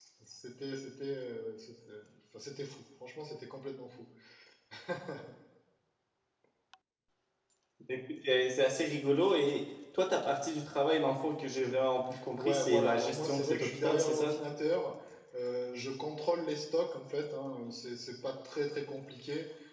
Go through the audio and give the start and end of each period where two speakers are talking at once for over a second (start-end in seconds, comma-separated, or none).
12.4-14.3